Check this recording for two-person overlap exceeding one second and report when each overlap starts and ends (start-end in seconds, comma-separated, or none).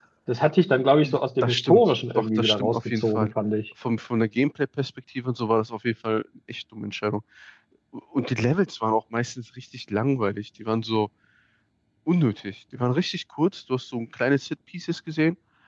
1.4-3.3